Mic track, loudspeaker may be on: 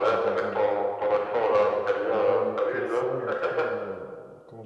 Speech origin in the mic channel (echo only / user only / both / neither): both